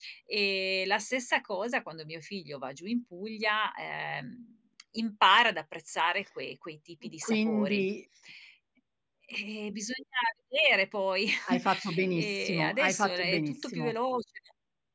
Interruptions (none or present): present